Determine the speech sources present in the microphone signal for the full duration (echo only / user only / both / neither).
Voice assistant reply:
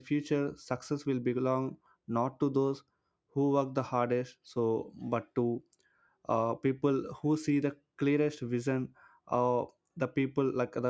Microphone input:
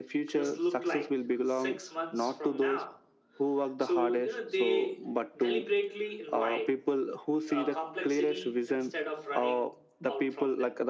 both